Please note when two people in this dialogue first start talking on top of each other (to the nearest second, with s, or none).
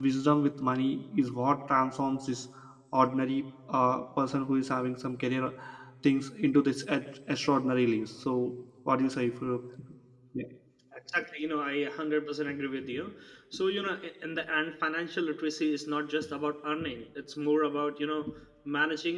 none